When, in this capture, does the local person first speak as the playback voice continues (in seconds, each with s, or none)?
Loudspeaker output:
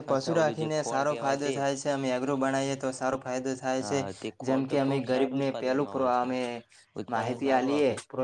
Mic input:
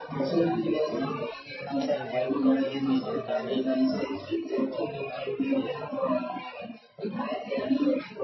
1.8 s